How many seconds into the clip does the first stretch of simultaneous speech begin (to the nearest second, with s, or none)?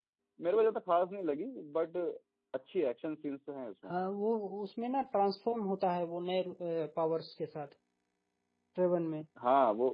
none